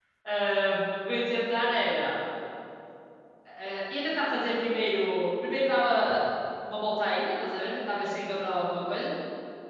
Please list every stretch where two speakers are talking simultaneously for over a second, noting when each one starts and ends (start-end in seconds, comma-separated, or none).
none